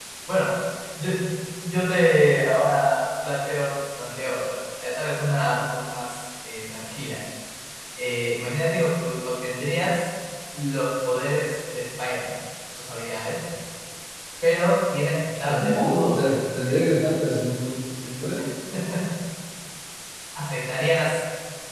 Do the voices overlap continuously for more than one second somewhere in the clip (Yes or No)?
Yes